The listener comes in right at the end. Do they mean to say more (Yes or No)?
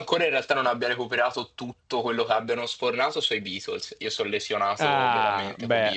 Yes